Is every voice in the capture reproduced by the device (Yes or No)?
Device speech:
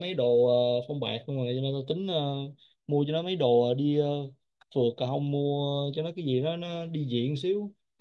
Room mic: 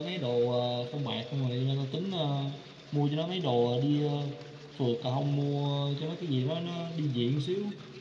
Yes